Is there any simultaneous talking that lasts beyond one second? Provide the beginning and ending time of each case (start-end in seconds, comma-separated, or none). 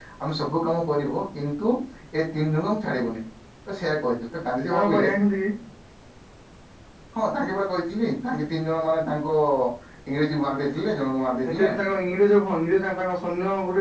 none